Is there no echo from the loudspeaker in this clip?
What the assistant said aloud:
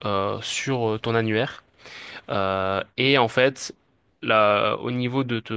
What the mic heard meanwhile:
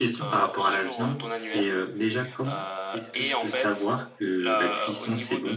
No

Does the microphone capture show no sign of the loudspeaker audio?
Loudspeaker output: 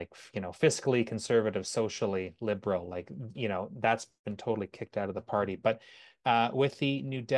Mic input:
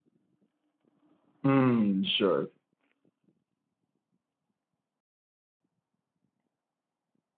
Yes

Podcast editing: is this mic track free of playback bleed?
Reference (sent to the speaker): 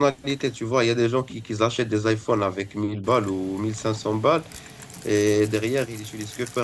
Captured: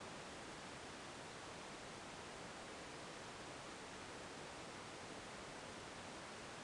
Yes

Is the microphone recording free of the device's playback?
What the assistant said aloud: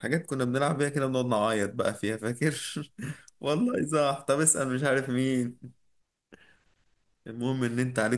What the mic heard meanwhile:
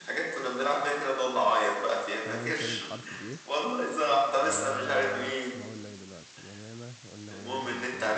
No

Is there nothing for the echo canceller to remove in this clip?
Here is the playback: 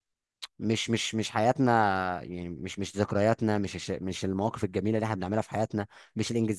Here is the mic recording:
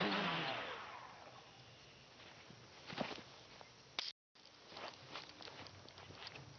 Yes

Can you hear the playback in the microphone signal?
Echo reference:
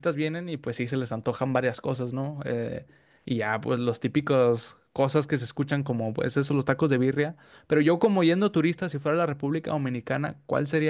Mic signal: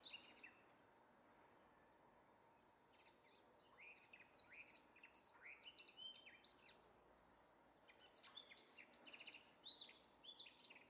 No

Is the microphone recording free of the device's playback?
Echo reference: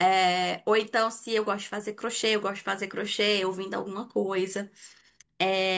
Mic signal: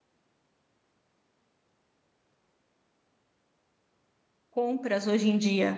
Yes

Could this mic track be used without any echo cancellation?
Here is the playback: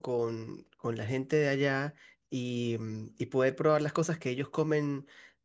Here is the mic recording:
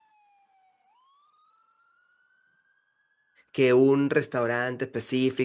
Yes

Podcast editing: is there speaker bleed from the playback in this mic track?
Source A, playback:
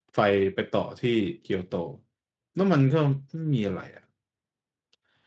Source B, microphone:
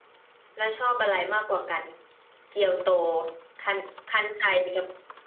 No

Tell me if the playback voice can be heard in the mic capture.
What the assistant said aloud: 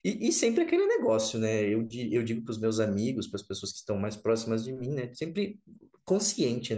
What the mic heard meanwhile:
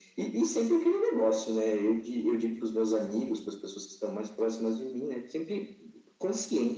Yes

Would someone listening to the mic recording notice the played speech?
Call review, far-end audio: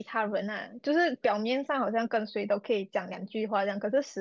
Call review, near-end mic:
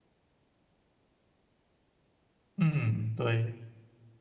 No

